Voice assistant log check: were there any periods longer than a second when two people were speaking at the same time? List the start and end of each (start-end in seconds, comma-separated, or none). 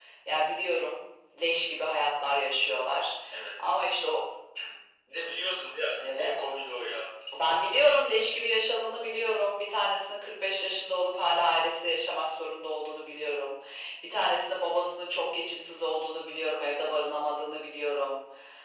none